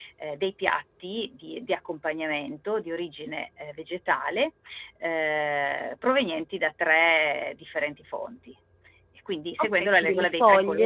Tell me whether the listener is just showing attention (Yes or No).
No